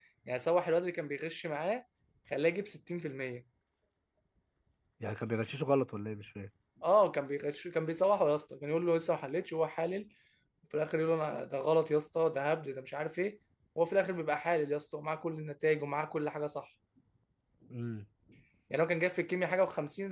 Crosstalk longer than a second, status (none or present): none